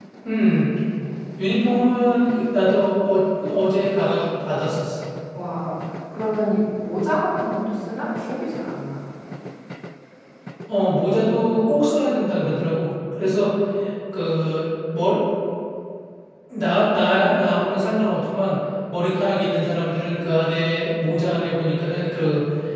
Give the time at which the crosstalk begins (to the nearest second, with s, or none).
none